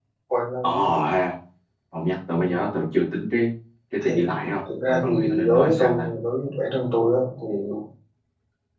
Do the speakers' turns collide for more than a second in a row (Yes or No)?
Yes